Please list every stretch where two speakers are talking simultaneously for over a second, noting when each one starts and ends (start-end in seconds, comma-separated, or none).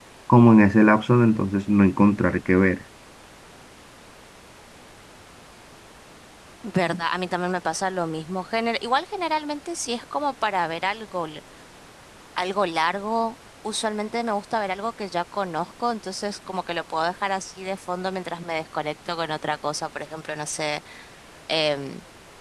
none